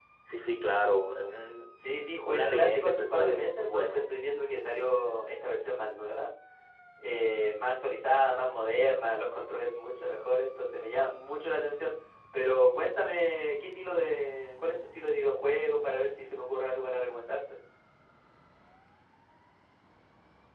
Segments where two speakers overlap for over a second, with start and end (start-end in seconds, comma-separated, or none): 2.2-4.0